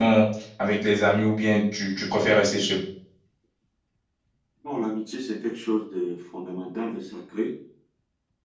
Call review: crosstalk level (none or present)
none